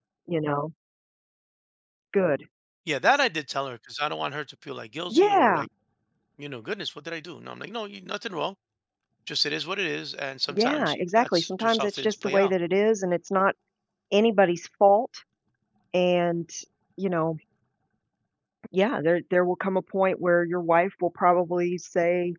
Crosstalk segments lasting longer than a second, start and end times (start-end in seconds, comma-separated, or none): 10.5-12.5